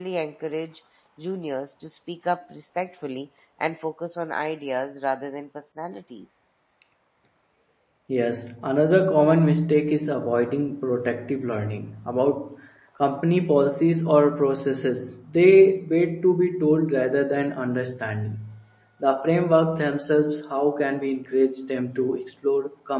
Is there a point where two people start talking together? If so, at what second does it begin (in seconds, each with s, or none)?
none